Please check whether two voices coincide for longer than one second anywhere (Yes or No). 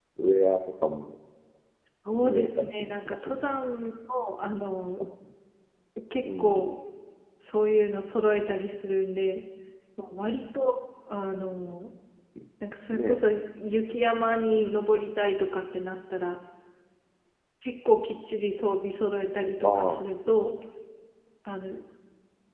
Yes